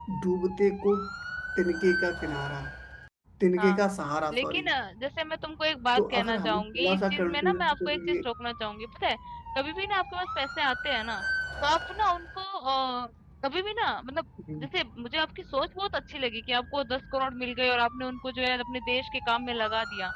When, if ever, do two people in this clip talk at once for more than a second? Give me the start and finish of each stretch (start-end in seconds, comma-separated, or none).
6.0-8.2